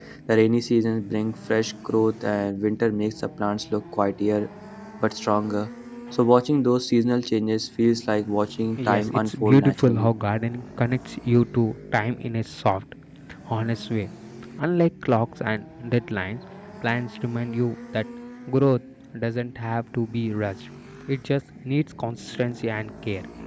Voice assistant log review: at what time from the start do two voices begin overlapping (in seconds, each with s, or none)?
8.8 s